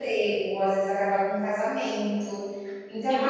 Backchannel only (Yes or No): No